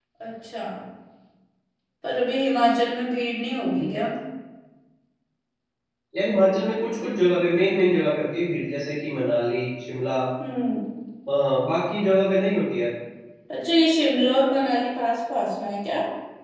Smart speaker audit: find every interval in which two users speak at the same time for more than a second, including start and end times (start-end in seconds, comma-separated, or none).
none